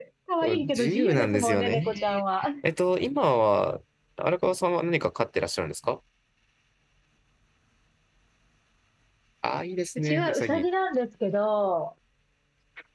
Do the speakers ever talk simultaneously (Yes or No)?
Yes